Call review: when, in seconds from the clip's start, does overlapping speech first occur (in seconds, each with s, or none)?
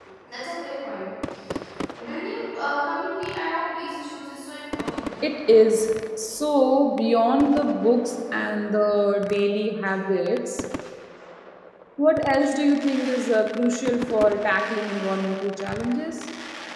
none